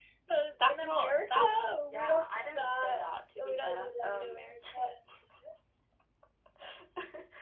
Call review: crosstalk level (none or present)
present